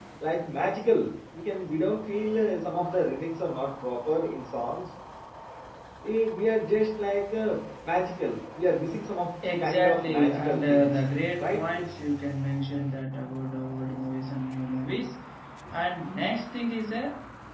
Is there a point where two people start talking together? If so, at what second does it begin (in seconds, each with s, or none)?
9.4 s